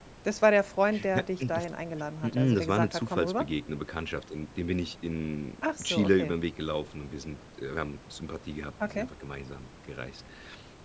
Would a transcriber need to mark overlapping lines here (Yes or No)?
Yes